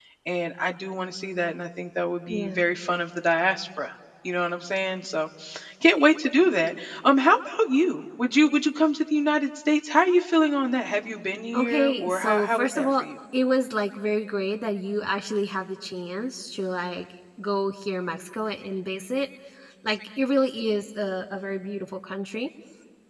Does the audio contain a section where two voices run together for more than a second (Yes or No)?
Yes